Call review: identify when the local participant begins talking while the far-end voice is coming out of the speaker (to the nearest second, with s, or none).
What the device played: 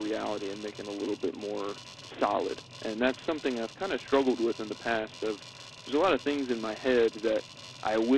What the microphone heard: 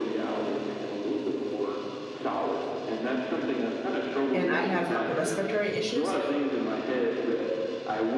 4 s